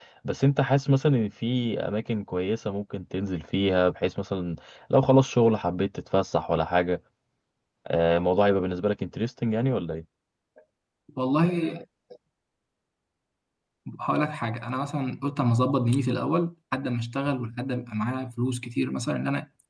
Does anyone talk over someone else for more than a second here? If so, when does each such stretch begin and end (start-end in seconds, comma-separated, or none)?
none